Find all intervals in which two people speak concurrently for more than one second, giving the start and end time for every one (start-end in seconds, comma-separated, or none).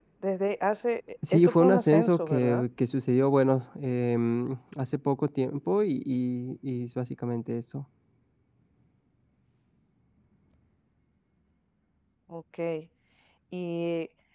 1.3-2.6